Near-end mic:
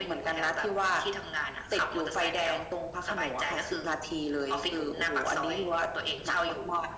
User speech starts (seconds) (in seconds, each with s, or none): none